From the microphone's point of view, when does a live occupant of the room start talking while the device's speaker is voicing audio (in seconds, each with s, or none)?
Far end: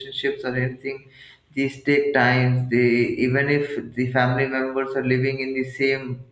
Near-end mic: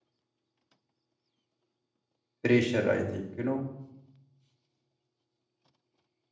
2.4 s